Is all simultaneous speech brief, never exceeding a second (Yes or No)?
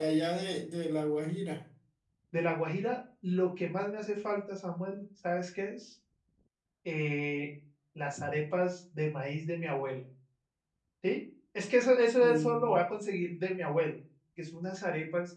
Yes